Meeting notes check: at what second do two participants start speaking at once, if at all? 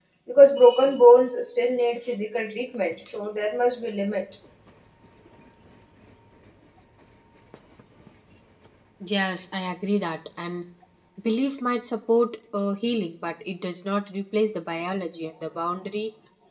none

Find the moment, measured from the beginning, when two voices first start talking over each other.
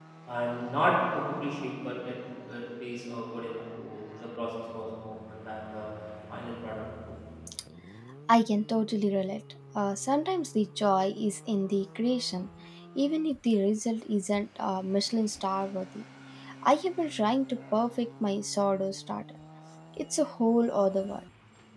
none

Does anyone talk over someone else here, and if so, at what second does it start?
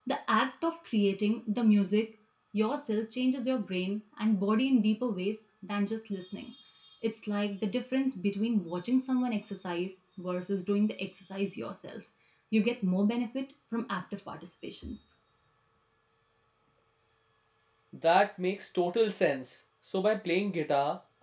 none

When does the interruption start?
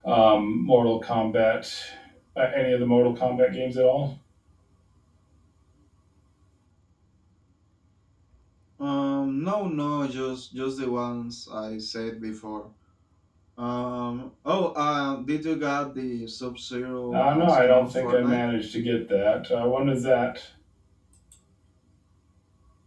17.1 s

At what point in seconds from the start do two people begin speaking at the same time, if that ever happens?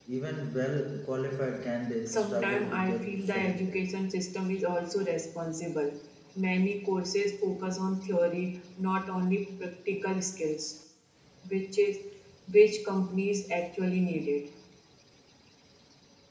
2.1 s

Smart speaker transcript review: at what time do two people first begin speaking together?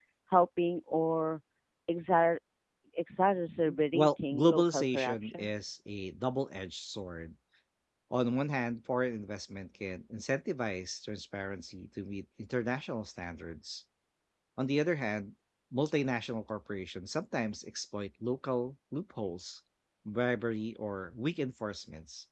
3.9 s

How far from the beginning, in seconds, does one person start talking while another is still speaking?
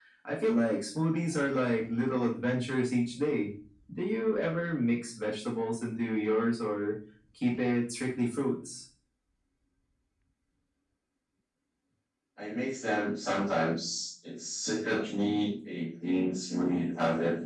none

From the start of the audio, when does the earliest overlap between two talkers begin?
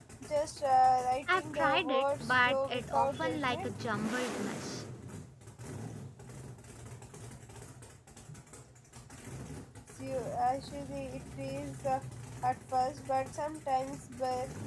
1.3 s

